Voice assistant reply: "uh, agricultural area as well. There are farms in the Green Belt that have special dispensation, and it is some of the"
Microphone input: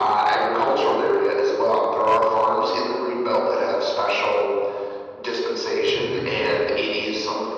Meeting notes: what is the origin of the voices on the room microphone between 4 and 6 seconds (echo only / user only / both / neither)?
echo only